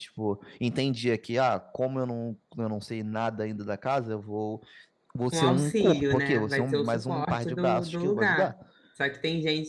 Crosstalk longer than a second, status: present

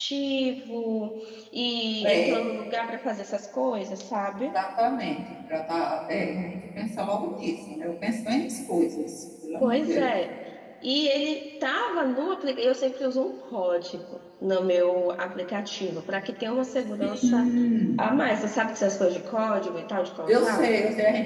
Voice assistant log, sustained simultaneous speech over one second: none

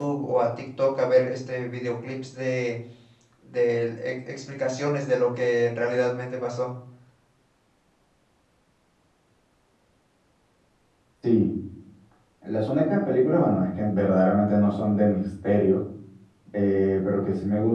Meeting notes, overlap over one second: none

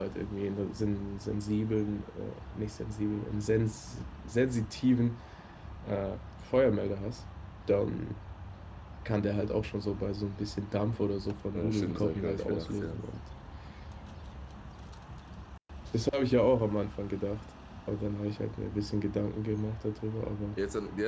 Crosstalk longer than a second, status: present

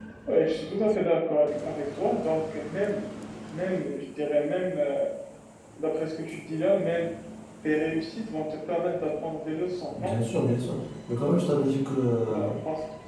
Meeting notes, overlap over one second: none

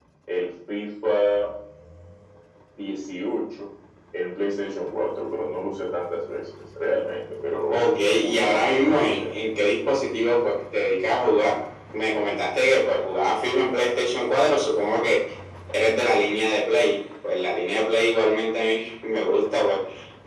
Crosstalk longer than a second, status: present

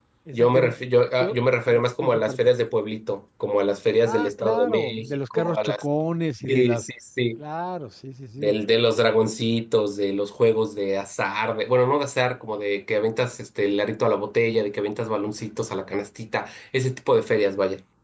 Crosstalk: present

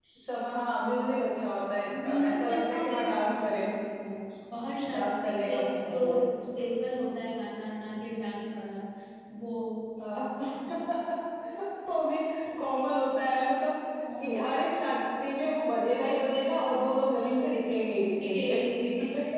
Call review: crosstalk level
present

